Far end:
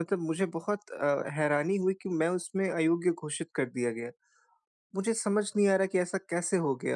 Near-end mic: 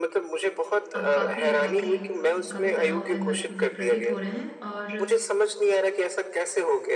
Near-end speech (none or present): present